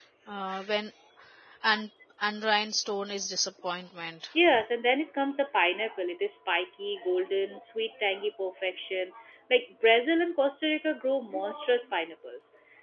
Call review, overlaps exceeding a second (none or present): none